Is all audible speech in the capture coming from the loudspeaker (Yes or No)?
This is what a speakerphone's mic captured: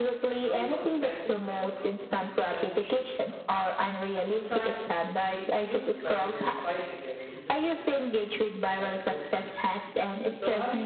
No